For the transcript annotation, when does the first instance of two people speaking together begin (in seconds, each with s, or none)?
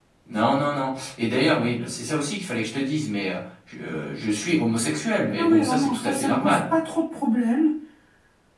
5.3 s